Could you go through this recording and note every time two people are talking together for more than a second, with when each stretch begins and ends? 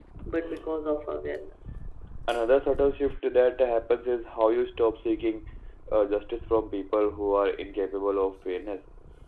none

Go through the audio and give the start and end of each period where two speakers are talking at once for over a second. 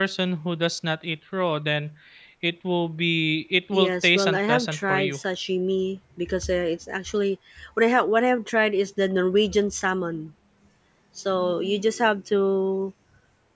3.7-5.2

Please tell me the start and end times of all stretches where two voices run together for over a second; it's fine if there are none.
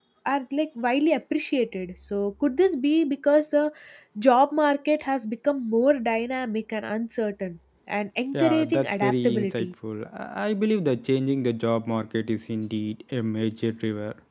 8.3-9.7

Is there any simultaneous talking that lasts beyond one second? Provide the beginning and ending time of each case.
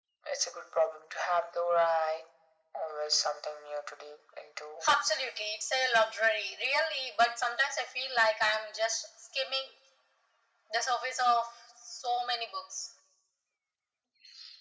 none

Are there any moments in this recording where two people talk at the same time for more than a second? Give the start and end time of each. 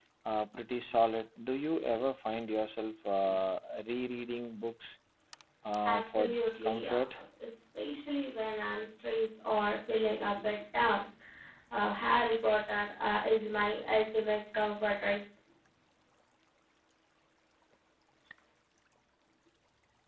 5.8-7.2

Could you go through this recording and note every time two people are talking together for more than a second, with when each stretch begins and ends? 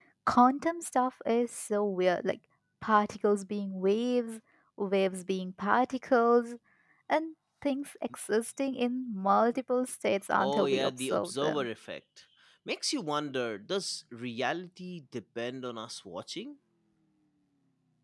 10.4-11.6

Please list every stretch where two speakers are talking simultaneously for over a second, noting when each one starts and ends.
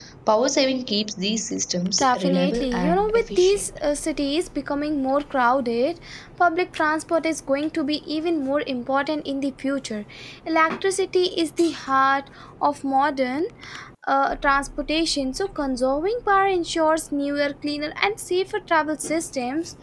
2.0-3.7

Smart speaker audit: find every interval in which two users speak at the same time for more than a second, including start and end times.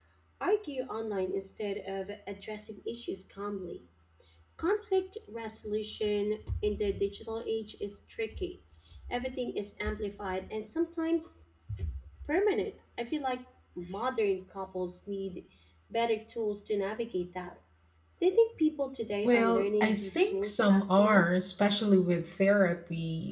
19.2-21.2

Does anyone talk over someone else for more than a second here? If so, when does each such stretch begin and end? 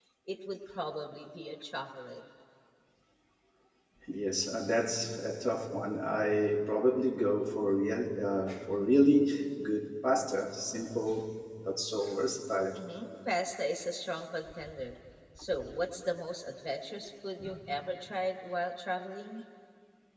none

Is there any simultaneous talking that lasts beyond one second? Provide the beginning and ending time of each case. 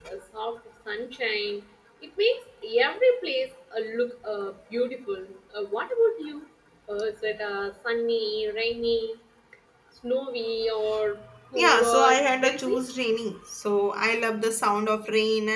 11.5-12.8

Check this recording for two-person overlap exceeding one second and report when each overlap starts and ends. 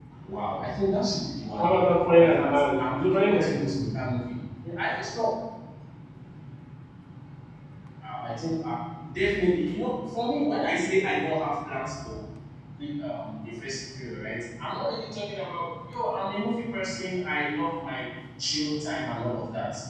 2.2-3.7

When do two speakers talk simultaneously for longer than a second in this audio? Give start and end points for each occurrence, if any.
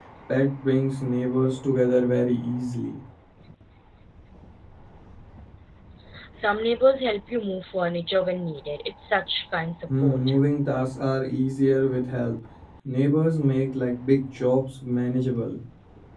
none

